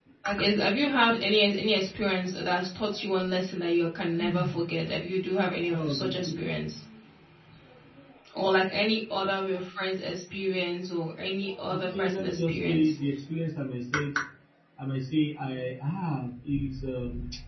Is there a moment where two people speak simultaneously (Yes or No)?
Yes